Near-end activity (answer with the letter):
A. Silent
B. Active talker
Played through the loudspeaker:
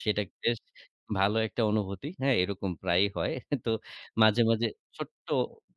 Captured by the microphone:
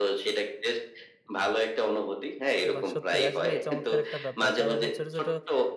B